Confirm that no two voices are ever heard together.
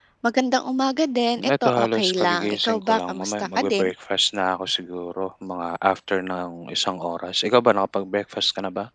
No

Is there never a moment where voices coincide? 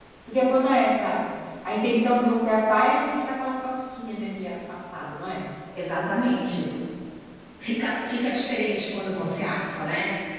Yes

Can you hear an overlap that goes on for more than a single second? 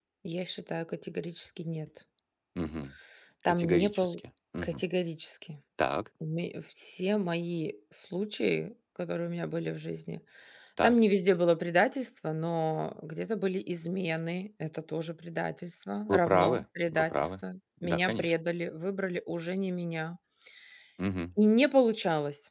Yes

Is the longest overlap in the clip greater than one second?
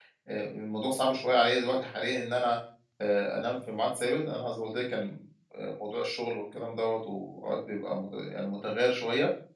No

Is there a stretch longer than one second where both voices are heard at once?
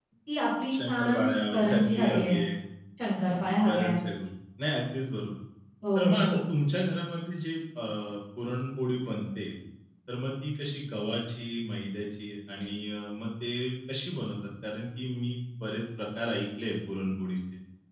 Yes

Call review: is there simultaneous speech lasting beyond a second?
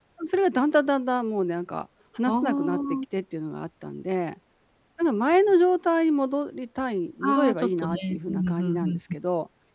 Yes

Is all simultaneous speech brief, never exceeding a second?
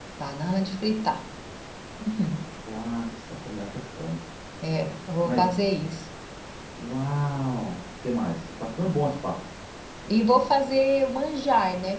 Yes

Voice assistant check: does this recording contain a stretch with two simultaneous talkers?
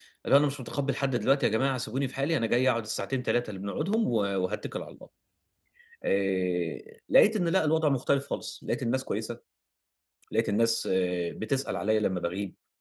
No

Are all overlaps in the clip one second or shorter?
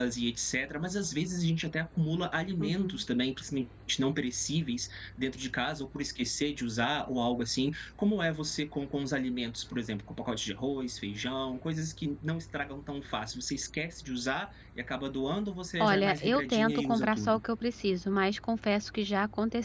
No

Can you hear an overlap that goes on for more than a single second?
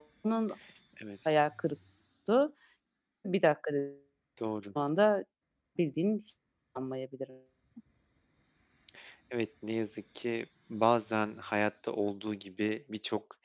No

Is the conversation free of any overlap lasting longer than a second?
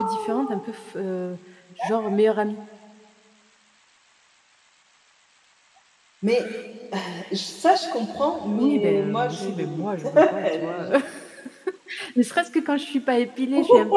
No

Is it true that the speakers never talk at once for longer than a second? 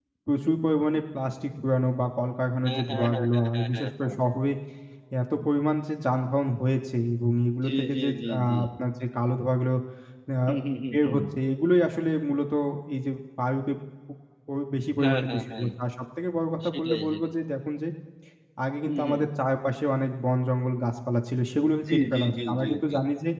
No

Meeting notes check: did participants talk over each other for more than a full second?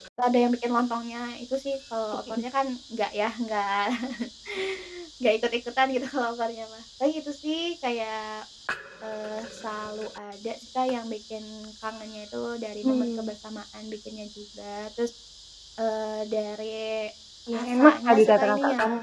Yes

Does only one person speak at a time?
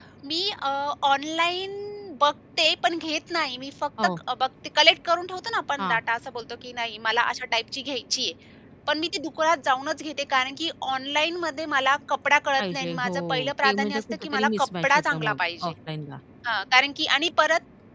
No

